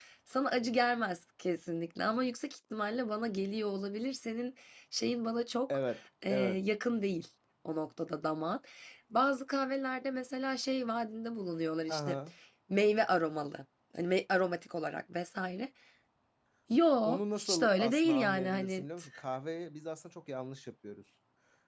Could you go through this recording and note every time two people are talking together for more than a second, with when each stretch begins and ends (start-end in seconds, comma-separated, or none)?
17.0-18.8